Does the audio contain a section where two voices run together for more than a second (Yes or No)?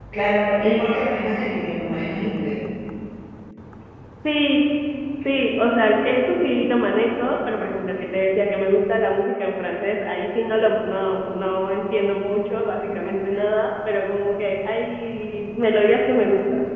No